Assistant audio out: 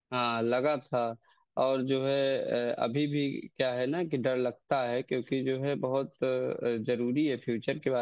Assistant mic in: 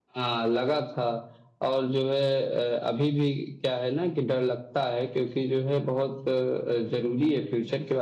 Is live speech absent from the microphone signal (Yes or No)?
Yes